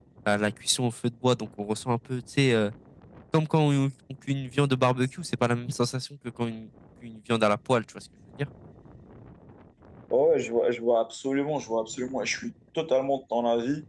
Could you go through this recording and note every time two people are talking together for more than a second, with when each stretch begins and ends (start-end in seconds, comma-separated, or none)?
none